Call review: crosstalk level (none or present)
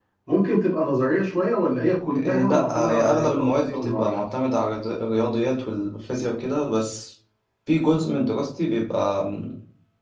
present